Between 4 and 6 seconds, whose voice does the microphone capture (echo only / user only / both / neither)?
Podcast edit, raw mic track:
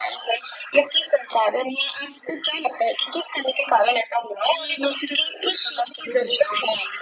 echo only